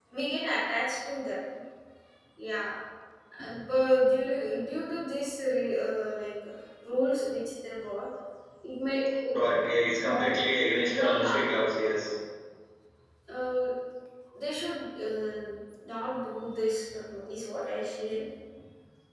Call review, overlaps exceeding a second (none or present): none